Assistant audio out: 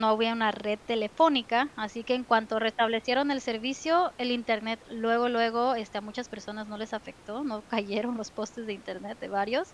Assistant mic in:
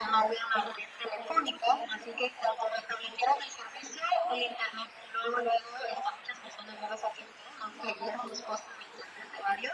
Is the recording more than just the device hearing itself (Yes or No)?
No